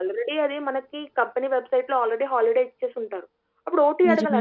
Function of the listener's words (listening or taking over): listening